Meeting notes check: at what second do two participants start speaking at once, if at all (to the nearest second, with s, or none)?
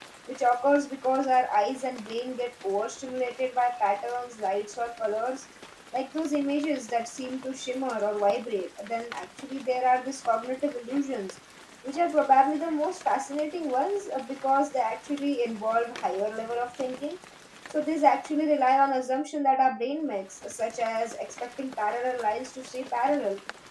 none